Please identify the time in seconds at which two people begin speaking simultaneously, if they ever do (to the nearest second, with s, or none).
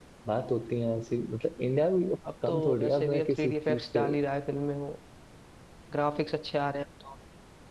2 s